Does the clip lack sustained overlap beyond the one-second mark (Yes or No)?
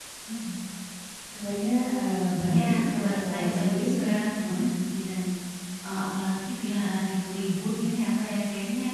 No